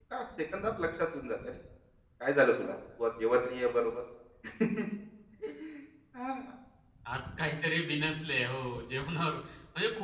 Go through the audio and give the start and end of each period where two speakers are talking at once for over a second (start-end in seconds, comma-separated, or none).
none